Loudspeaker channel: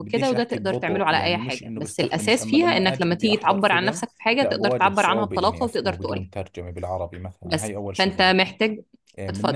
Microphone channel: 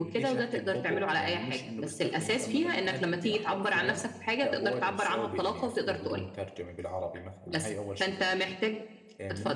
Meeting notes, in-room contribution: present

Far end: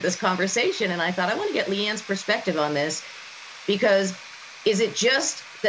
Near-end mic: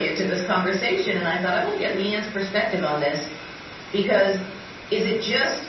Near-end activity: none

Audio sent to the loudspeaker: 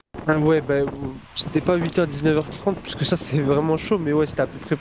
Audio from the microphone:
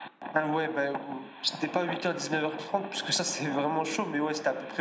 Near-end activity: none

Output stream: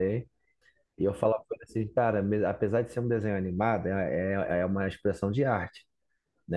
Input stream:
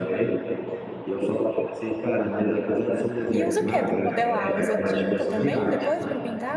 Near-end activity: present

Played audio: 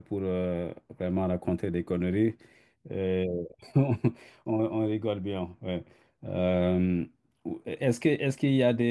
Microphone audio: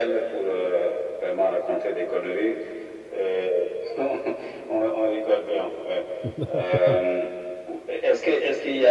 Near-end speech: present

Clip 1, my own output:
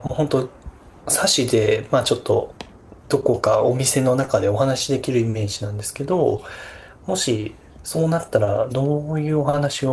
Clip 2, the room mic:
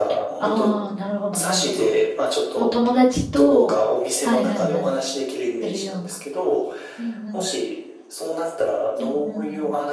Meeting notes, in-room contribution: present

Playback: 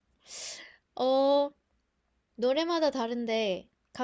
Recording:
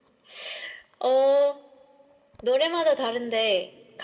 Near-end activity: none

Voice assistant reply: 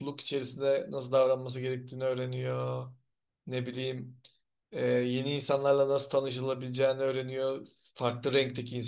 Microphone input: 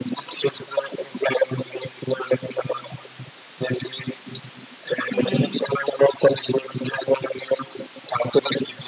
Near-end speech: present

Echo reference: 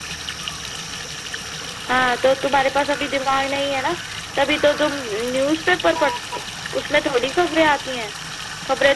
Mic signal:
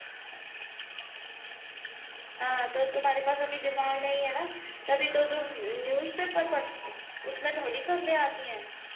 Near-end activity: none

